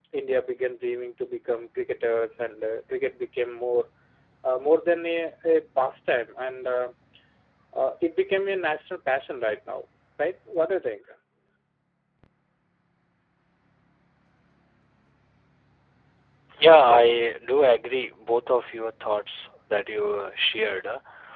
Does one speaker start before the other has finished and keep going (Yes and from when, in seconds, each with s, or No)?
No